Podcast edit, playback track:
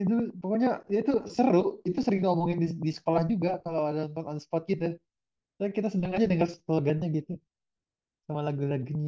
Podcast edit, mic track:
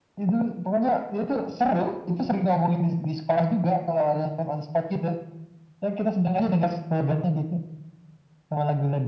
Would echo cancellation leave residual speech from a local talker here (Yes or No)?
No